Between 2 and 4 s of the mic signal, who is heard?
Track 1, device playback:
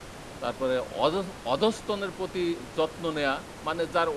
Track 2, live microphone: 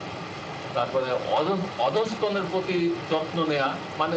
echo only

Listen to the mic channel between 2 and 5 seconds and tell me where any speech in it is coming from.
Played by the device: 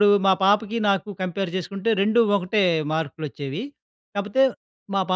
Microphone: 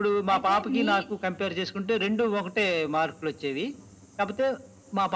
echo only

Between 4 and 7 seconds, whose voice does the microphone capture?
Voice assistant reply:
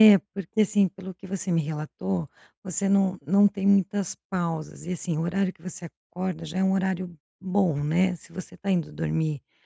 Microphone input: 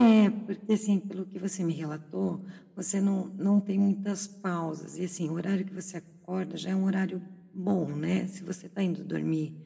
echo only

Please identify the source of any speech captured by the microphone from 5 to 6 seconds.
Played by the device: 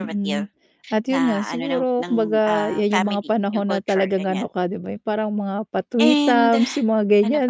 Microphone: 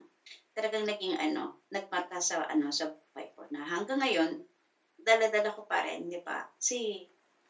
user only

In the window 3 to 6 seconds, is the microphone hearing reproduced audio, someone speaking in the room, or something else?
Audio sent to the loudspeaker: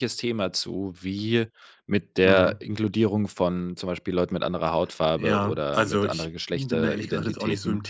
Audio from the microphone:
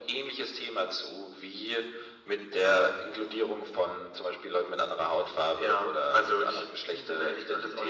echo only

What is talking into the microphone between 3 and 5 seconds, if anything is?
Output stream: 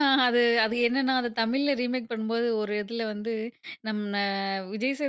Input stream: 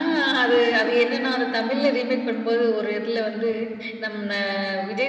echo only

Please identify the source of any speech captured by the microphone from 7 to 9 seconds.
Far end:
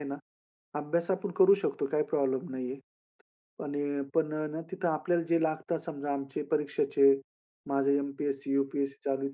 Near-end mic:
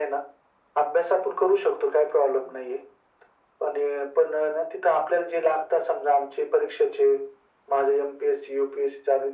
echo only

